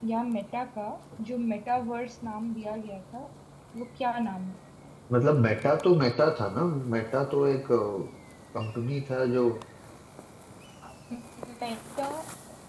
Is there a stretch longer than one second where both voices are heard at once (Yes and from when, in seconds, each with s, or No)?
No